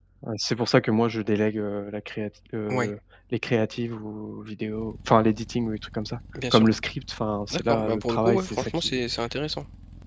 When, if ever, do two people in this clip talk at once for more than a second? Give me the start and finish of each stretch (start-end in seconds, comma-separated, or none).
7.5-9.0